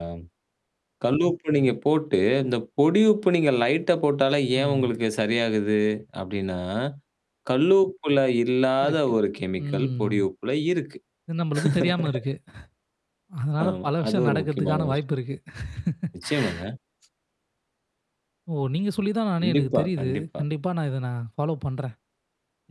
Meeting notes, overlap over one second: present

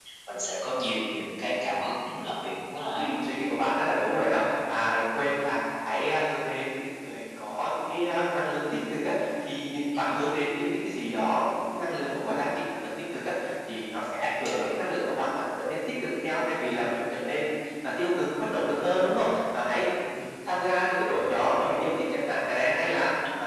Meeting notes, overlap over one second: none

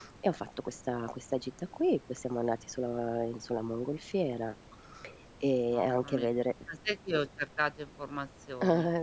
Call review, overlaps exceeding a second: none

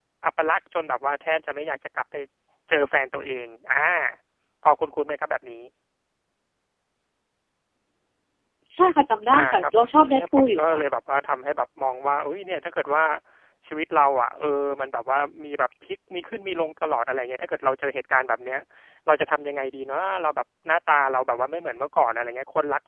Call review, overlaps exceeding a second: present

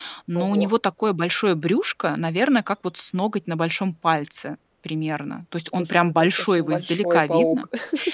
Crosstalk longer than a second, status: present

